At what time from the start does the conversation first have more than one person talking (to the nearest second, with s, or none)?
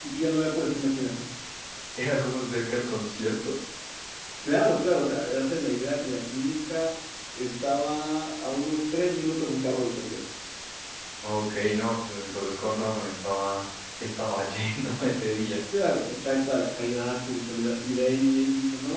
none